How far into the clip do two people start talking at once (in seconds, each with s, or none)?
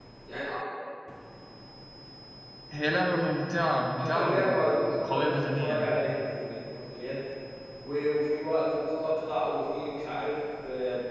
4.0 s